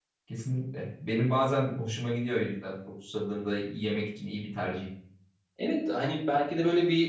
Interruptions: none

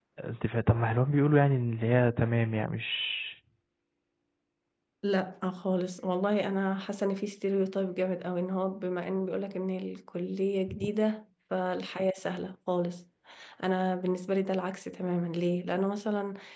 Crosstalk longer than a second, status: none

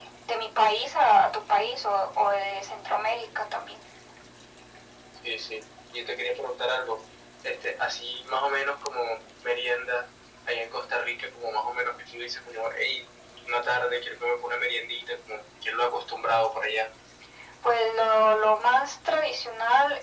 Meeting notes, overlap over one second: none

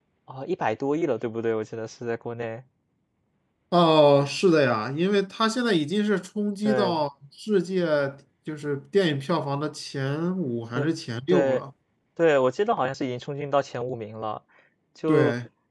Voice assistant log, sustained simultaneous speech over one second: none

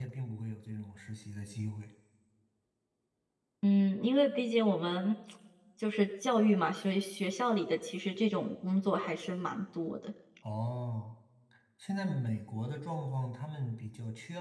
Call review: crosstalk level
none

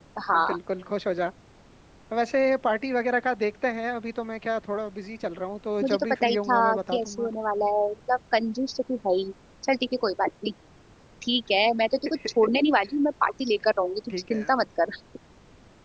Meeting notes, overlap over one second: present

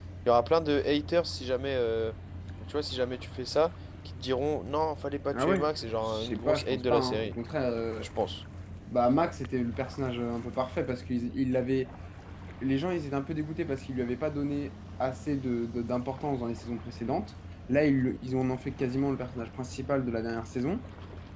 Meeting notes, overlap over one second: present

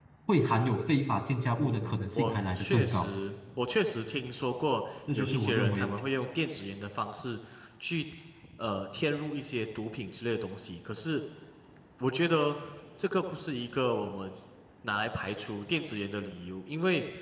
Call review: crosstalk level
present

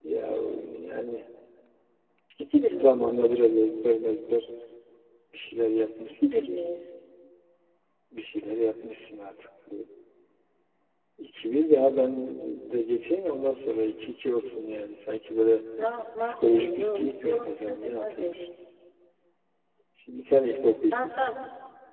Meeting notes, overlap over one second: present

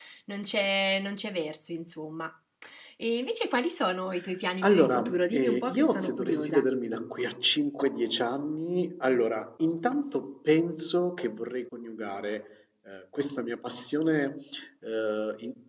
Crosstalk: present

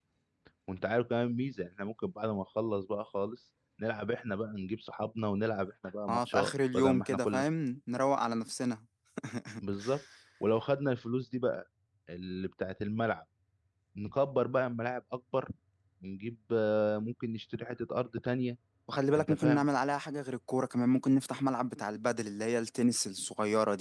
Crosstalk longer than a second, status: present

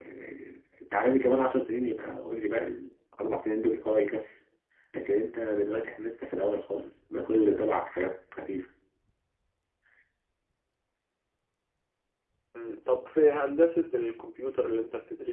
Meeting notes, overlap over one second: none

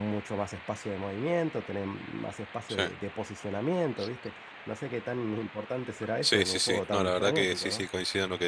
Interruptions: present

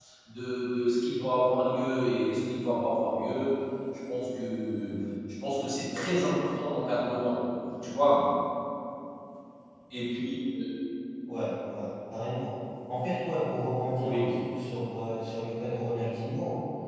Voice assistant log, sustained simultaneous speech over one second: none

